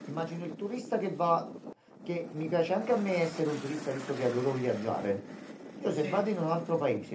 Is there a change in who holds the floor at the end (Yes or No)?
No